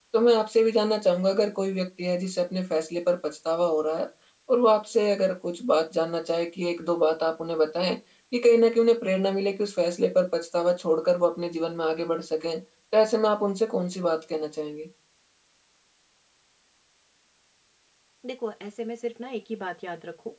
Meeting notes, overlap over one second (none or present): none